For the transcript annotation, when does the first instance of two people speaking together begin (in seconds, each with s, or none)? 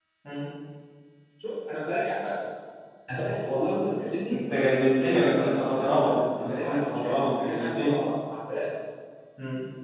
4.3 s